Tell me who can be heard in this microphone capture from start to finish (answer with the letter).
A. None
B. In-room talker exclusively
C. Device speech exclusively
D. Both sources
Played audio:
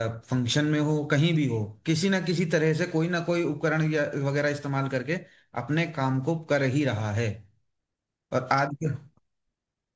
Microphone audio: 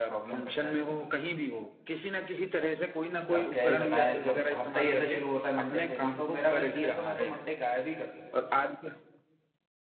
D